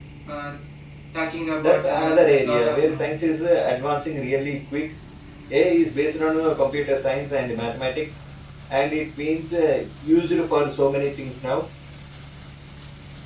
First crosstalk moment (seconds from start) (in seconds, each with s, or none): 1.6 s